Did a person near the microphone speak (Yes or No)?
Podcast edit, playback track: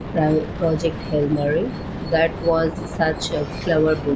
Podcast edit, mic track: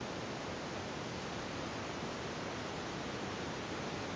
No